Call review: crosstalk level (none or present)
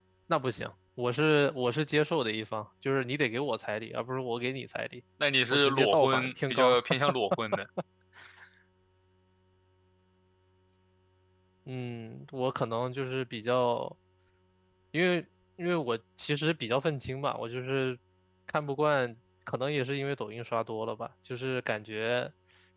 present